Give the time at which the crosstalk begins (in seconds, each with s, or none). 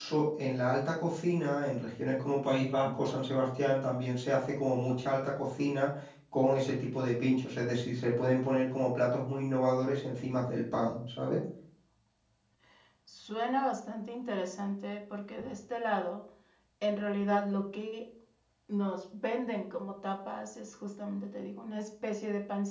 none